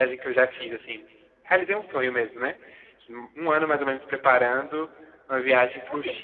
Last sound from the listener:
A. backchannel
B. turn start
A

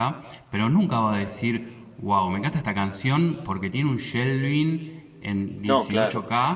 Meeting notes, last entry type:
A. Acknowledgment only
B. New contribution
A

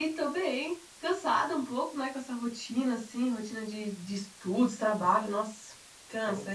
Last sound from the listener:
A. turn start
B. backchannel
A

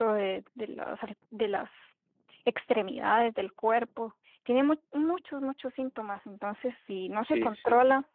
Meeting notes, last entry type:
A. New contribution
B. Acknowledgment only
B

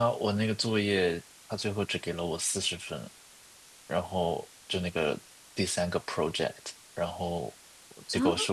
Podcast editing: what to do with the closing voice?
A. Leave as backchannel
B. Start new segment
A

